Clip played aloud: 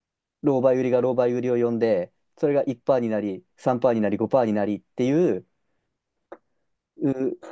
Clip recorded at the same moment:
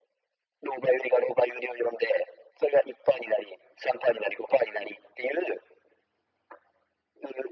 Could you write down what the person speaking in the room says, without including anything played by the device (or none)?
none